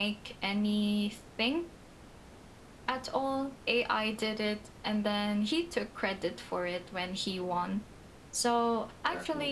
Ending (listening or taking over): listening